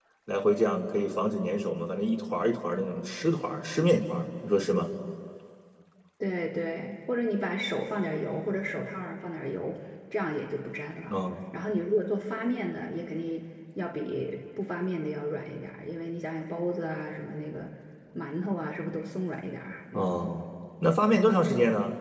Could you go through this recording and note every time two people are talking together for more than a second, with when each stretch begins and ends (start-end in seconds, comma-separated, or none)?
none